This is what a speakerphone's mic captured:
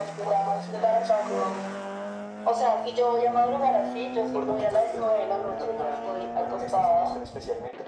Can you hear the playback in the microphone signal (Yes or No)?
Yes